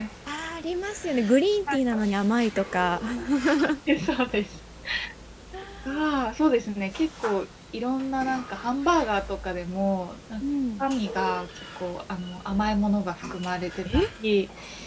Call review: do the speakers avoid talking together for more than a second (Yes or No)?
Yes